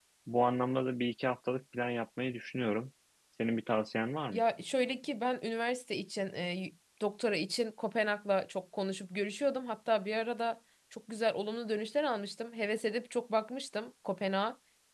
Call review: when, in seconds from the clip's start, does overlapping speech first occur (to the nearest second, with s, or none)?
none